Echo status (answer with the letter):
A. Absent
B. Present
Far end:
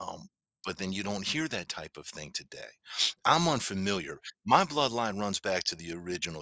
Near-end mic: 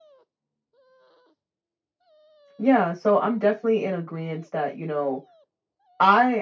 A